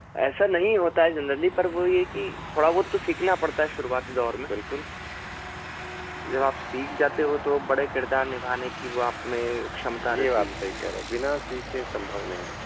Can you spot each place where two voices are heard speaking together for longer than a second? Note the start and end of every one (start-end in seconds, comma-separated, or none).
none